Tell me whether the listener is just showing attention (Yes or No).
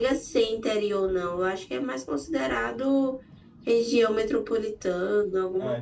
No